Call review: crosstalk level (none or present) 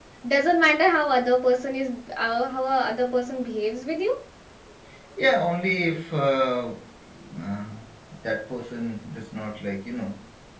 none